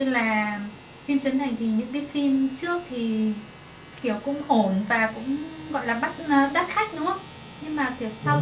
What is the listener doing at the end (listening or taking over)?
listening